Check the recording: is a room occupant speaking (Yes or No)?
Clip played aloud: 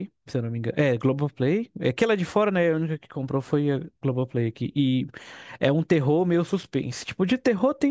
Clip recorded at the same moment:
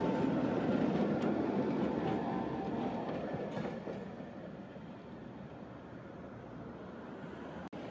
No